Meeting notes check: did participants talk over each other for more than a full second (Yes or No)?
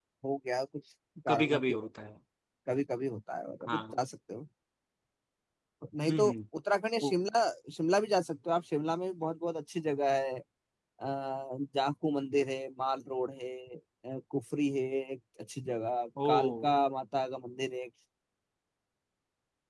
No